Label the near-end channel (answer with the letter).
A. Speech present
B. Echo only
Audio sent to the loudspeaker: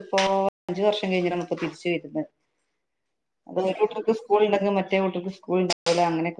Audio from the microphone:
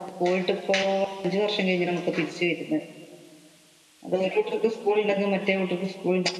B